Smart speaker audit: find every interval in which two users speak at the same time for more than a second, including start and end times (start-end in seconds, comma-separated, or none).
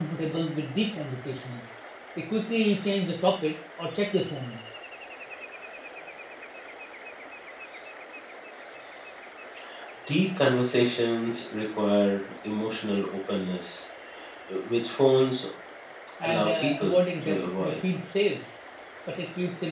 16.2-17.8